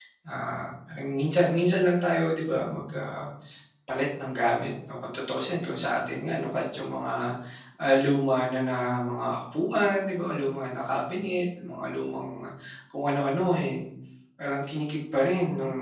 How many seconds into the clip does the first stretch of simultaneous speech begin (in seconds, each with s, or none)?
none